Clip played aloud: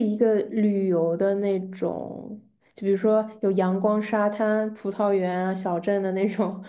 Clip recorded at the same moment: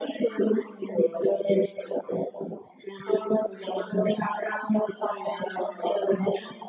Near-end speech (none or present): none